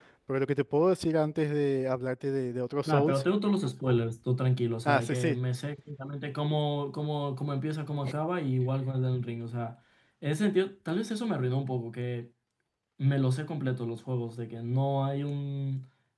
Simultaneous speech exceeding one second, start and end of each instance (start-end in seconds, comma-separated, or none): none